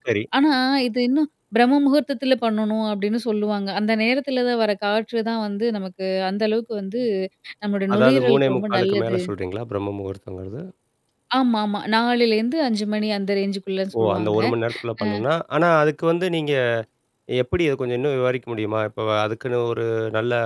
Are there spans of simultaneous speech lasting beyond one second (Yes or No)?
Yes